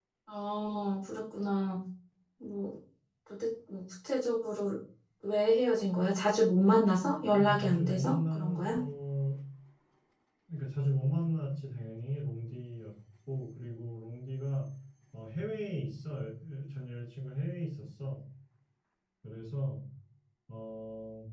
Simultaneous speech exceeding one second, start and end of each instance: 7.4-8.7

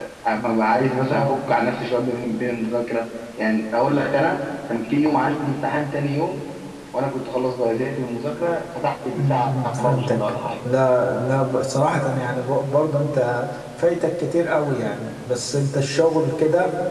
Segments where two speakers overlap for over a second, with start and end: 9.1-10.7

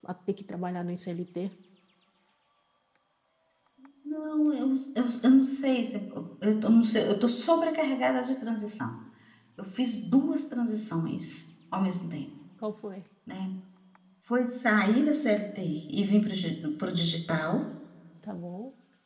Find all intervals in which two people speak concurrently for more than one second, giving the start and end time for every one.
none

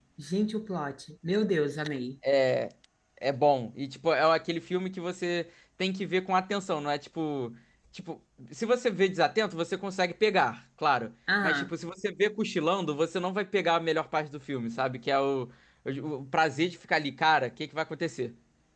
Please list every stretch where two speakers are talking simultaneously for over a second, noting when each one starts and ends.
none

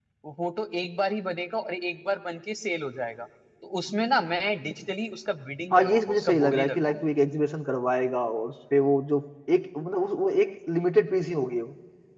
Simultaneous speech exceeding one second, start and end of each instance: 5.7-7.0

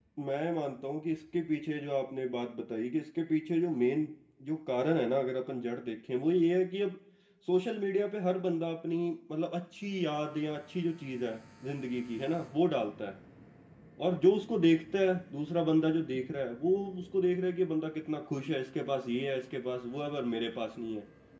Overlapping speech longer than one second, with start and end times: none

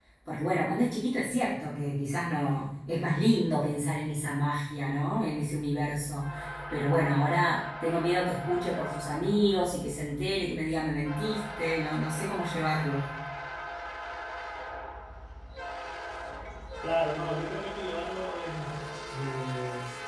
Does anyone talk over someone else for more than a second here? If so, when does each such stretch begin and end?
none

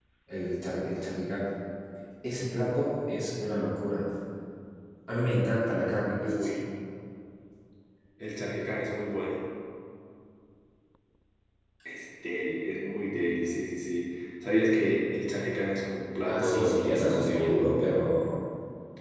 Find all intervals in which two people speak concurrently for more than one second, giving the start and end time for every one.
16.3-18.0

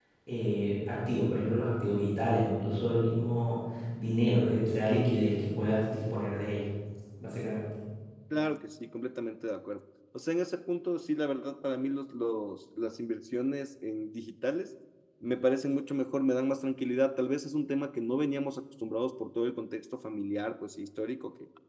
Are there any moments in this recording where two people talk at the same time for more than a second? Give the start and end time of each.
none

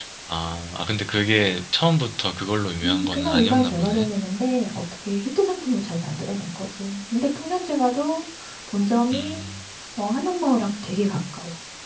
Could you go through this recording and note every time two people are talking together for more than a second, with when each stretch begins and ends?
2.8-4.1

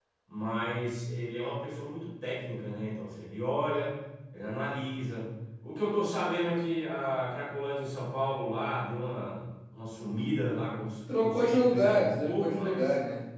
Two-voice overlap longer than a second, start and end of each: 11.2-12.9

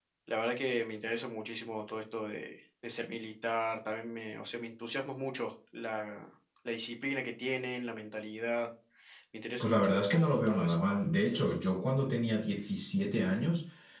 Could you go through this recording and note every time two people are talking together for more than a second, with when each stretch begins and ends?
9.6-10.8

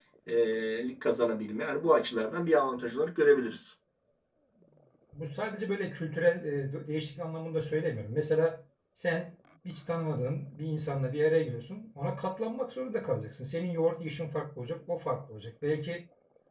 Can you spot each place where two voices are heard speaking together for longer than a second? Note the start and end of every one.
none

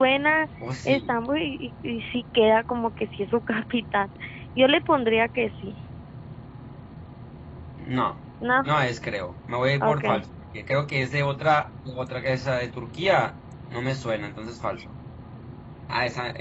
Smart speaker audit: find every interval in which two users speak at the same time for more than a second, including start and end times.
none

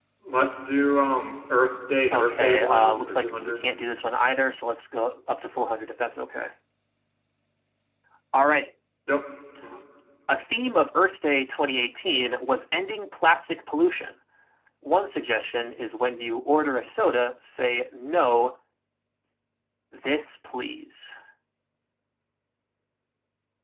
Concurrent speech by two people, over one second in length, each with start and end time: 2.1-3.8

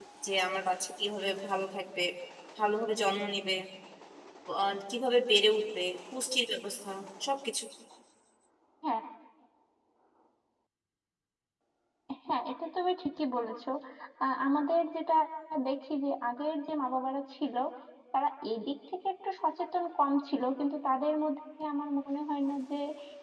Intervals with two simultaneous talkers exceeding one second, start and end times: none

